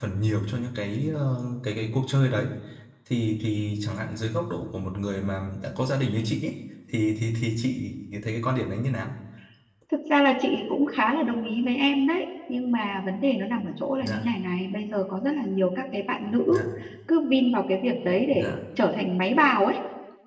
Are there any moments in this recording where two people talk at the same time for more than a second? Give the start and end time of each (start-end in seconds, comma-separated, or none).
none